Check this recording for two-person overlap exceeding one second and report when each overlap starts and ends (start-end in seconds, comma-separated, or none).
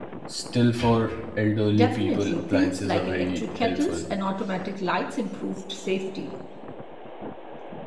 1.7-4.0